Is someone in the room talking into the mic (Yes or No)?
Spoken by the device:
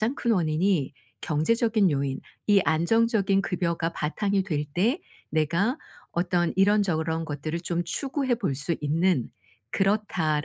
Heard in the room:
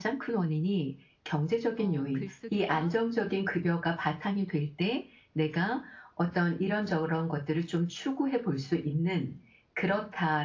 Yes